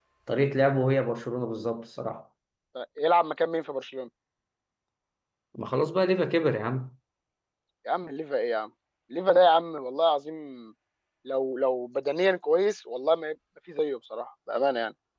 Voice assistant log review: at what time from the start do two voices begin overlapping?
none

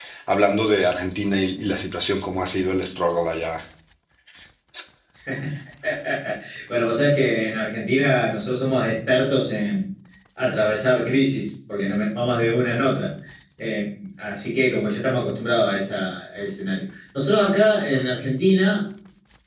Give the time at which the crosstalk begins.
none

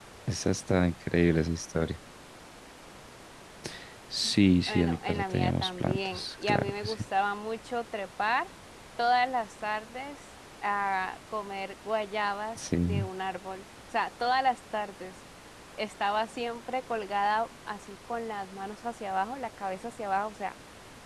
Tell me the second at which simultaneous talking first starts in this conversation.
4.7 s

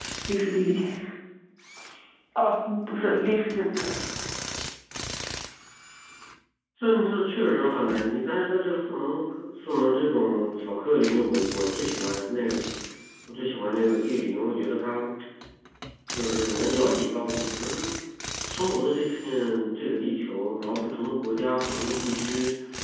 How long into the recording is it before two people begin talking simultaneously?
none

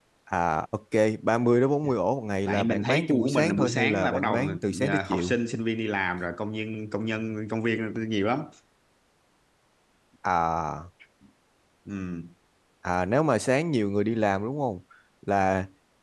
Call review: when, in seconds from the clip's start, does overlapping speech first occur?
2.5 s

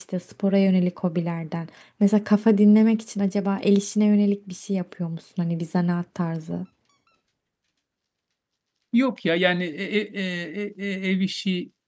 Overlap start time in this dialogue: none

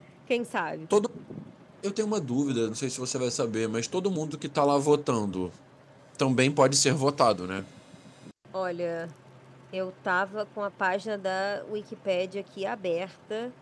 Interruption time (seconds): none

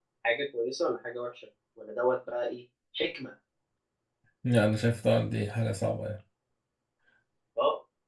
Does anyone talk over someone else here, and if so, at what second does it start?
none

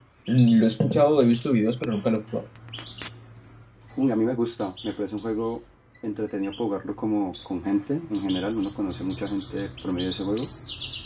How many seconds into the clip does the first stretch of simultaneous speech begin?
none

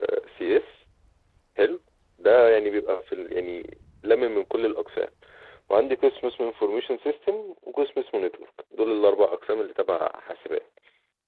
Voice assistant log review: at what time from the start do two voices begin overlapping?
none

